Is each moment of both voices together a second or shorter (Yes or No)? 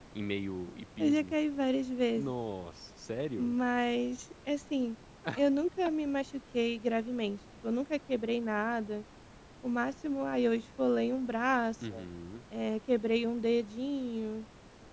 Yes